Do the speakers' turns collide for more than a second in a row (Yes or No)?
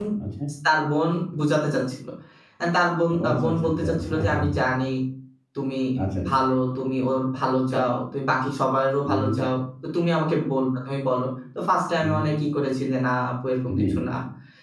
Yes